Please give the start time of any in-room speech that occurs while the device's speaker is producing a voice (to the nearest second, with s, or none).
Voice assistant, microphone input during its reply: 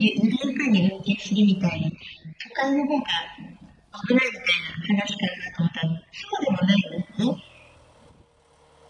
none